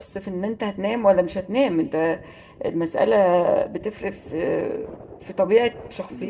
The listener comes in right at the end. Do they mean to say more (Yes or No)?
No